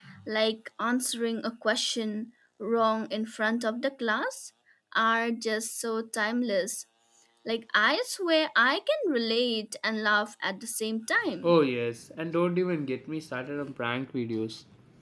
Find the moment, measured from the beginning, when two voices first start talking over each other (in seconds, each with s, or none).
none